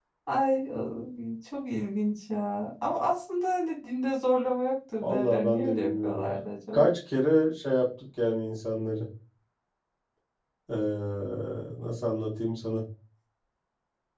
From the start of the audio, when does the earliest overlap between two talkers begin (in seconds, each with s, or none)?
5.0 s